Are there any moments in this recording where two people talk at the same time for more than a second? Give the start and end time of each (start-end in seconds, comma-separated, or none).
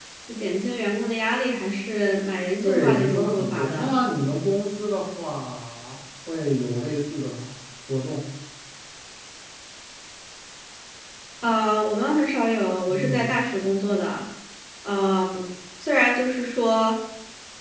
2.6-3.9